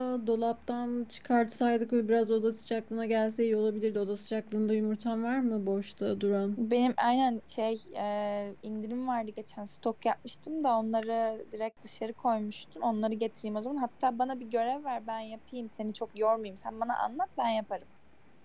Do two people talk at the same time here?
No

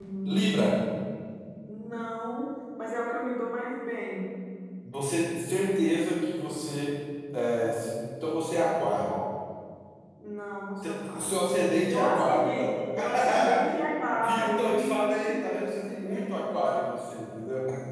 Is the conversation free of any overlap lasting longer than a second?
No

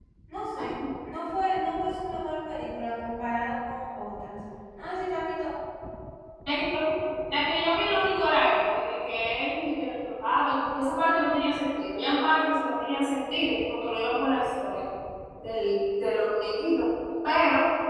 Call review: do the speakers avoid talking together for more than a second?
Yes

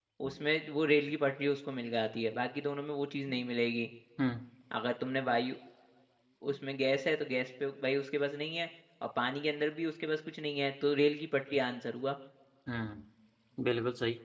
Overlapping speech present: No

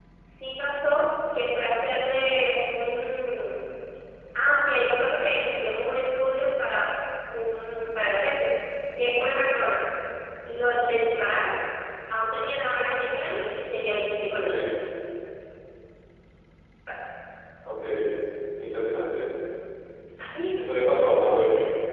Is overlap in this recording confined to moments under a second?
Yes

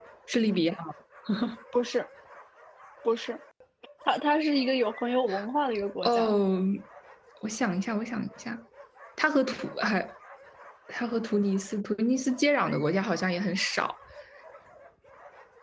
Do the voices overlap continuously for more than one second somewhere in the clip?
No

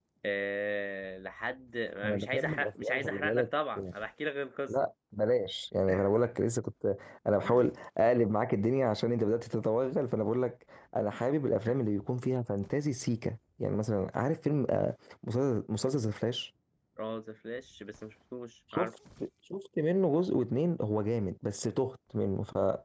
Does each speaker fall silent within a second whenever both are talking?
No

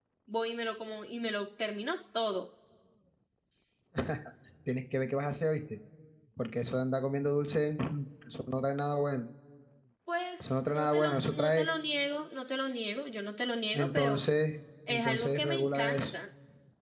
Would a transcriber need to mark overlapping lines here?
Yes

